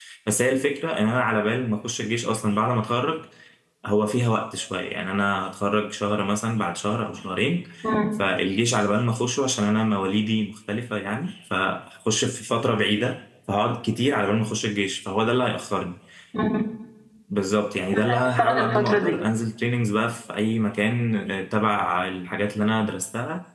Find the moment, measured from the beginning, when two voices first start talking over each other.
18 s

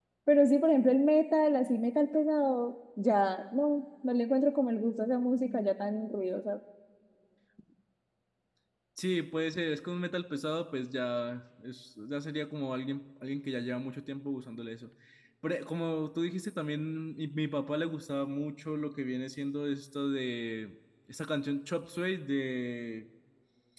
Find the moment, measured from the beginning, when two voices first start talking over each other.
none

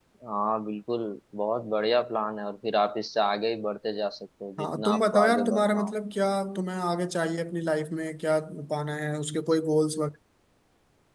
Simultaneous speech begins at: 5 s

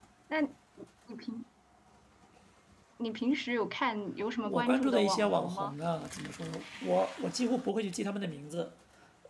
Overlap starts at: 4 s

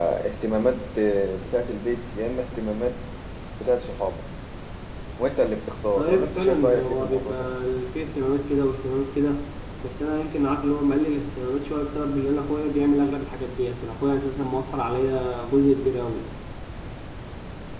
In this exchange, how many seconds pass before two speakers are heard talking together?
6 s

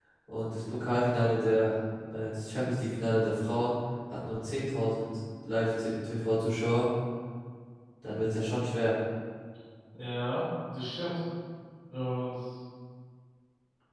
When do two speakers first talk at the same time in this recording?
none

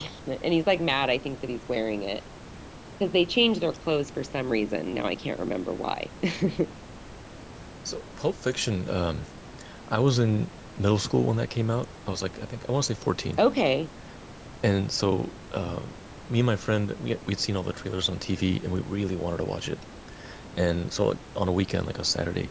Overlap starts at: none

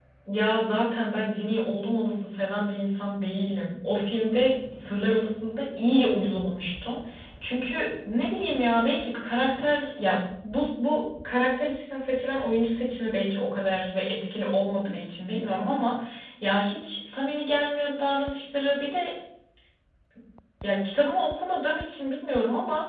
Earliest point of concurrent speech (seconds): none

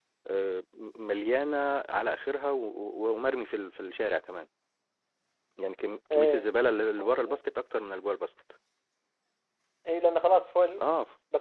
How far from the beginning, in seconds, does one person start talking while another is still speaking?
6 s

